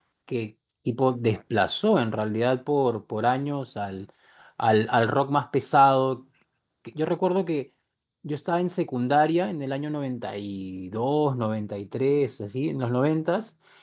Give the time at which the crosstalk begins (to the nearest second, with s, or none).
none